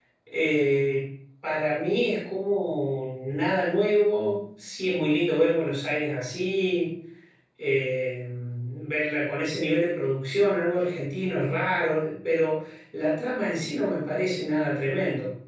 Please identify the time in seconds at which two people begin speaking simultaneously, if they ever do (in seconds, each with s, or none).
none